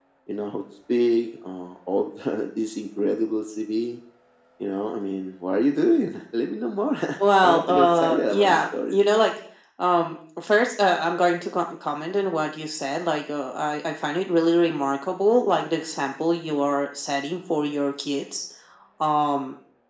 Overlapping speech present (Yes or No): Yes